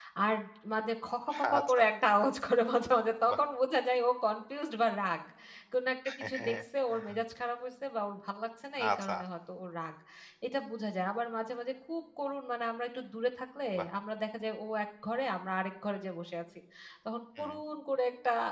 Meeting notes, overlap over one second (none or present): none